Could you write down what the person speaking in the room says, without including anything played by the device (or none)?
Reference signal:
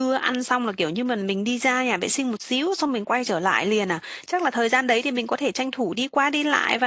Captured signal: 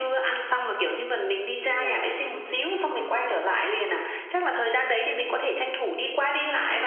đúng rồi.